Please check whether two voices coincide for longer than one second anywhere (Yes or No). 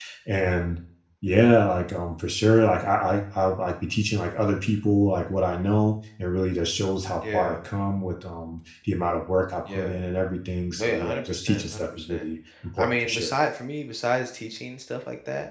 Yes